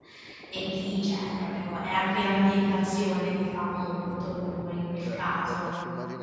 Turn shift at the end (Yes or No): Yes